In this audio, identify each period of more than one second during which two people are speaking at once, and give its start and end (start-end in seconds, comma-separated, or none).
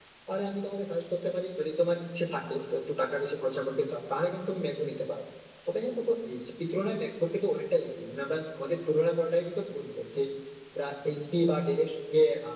none